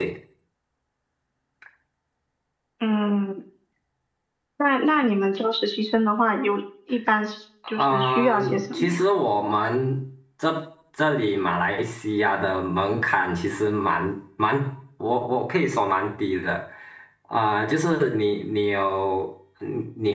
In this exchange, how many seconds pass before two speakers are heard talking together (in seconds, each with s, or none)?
7.8 s